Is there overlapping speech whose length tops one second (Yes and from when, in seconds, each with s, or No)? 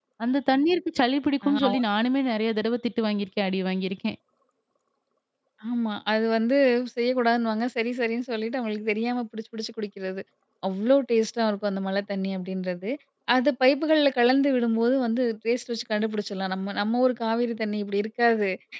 No